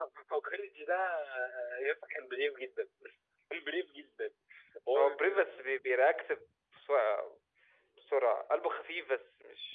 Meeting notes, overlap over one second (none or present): none